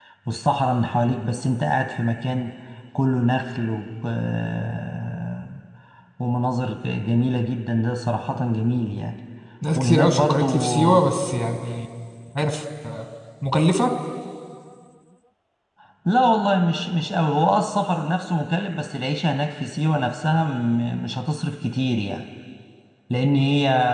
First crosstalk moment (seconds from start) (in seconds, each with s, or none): 9.8 s